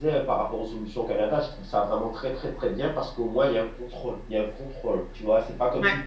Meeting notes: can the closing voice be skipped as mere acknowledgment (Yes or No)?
Yes